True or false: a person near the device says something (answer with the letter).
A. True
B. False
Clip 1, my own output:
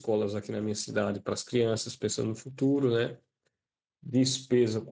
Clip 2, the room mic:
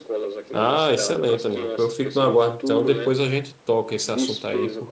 A